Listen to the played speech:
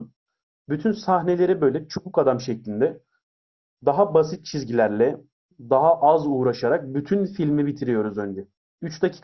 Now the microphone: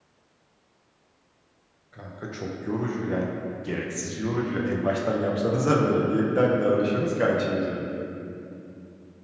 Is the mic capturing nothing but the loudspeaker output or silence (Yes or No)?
No